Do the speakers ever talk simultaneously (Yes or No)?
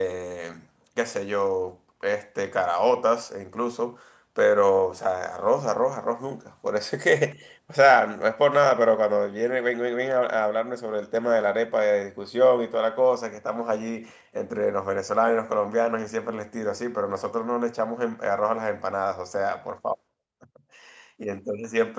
No